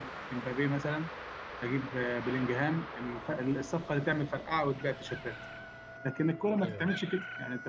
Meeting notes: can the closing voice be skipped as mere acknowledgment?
Yes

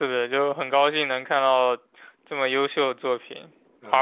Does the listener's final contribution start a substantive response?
No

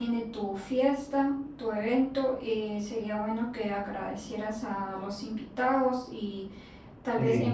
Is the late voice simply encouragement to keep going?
Yes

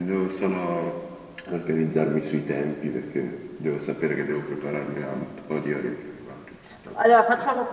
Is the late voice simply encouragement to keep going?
No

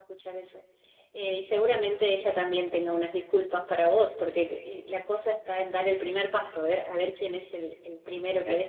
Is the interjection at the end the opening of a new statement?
No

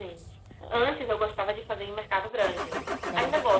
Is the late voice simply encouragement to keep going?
Yes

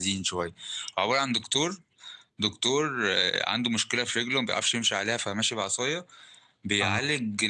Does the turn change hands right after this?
No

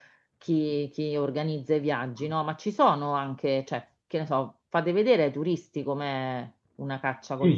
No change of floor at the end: No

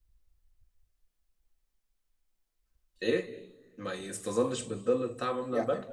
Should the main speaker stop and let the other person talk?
Yes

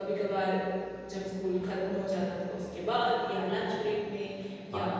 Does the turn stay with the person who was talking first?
Yes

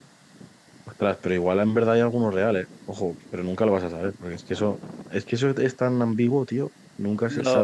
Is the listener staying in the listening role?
No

